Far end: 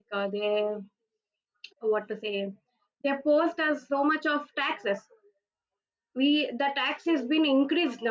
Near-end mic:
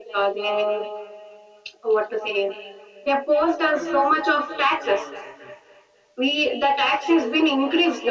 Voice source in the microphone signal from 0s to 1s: echo only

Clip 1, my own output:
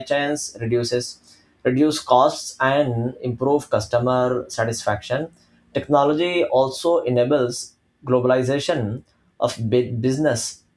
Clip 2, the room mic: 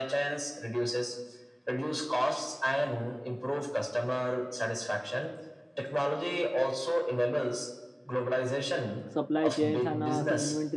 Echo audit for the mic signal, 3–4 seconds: echo only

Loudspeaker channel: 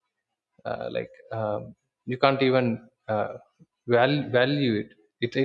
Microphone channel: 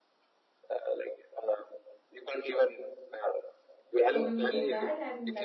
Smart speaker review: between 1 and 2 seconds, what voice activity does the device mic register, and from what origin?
echo only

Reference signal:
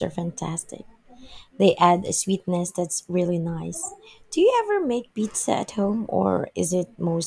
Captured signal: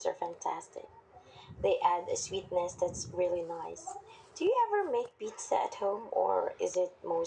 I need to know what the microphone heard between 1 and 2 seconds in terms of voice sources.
echo only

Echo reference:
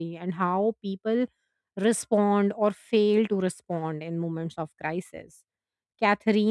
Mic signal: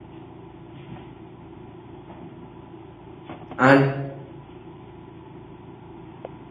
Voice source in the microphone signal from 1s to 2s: neither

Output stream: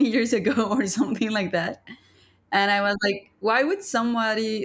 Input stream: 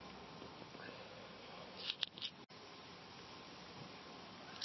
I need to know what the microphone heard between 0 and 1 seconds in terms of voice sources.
neither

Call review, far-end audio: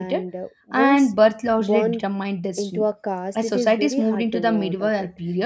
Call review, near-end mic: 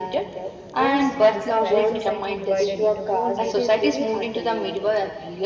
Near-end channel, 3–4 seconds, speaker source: both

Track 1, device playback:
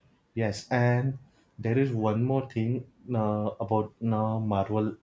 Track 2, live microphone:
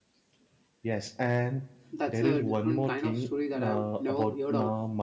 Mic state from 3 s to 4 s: both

